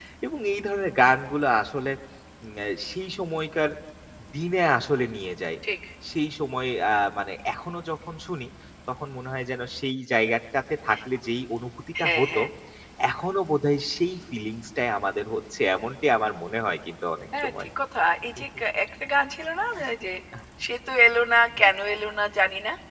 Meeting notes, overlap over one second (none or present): none